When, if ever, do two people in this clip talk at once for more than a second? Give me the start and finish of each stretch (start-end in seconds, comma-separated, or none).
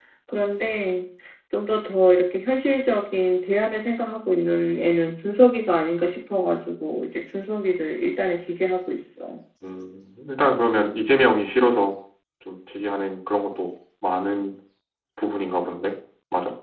none